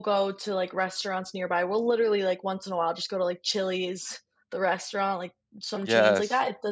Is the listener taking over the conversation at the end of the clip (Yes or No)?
No